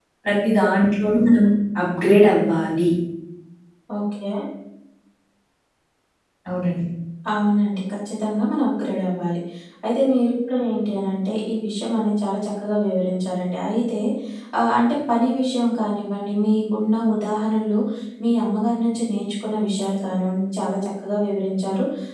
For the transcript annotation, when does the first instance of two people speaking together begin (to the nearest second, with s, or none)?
none